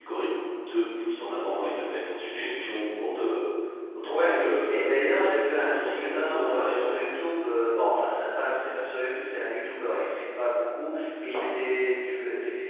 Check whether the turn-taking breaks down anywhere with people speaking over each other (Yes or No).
Yes